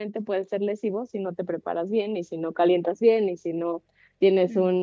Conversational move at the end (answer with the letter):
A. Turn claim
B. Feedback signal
B